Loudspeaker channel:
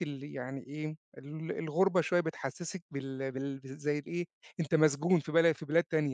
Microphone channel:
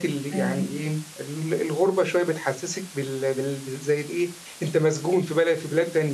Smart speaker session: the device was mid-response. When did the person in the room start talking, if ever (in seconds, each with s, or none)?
0.3 s